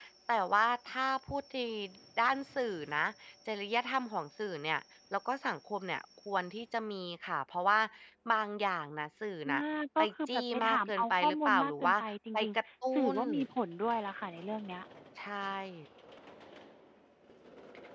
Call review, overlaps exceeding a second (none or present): present